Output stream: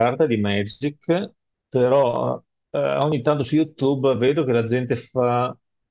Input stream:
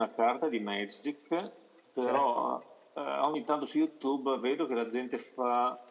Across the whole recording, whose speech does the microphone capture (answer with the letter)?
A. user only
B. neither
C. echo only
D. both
D